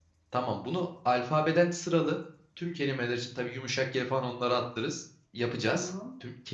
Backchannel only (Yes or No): Yes